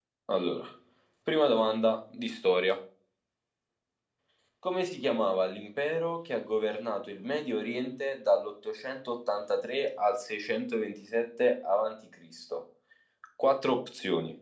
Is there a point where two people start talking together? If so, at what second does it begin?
none

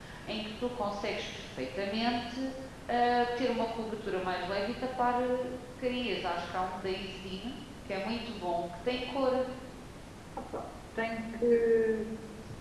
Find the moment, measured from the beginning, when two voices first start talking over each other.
none

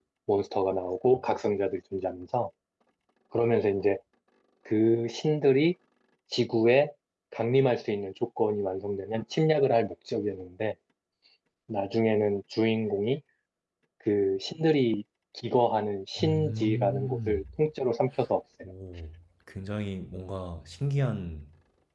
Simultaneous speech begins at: 16.2 s

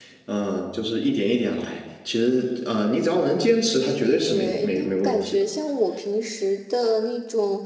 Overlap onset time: 4.2 s

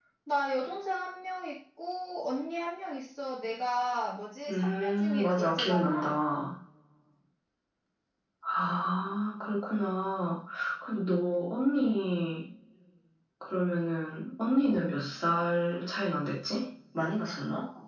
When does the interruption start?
4.5 s

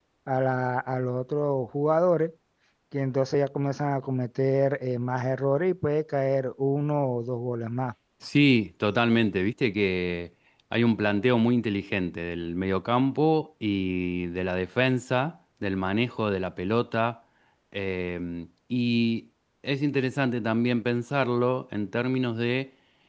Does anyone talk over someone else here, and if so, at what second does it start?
none

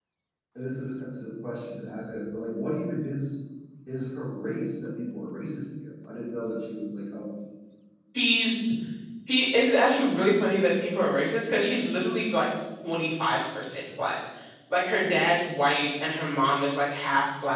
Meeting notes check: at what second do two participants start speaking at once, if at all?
none

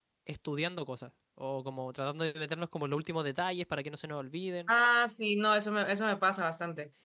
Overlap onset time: none

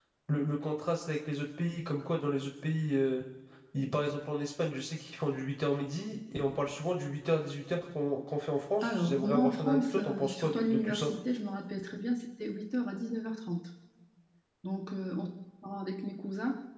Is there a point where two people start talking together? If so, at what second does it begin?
8.8 s

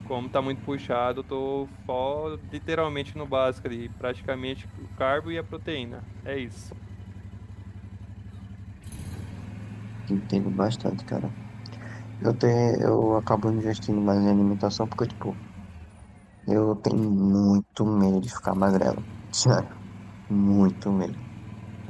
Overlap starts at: none

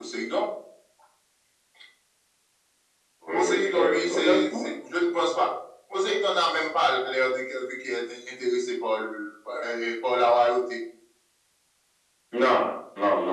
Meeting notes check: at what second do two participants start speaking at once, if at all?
3.3 s

